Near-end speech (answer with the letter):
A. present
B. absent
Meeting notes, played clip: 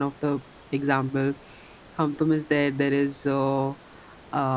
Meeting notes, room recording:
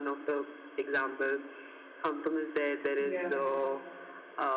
A